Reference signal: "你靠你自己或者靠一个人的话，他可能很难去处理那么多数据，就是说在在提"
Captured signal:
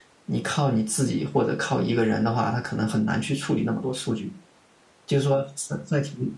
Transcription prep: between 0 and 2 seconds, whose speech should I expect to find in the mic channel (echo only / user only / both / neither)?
echo only